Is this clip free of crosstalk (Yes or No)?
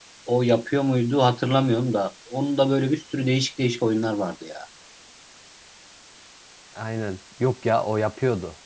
Yes